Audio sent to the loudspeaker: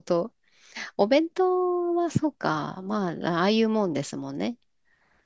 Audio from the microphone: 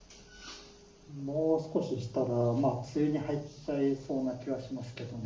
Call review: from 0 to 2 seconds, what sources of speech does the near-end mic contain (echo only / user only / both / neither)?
user only